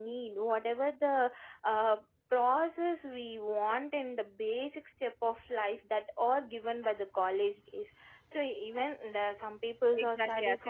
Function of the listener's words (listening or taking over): taking over